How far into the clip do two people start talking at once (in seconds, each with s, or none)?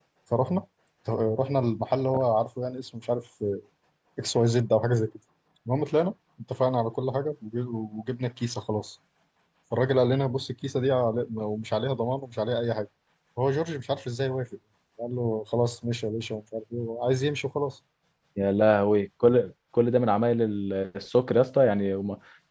none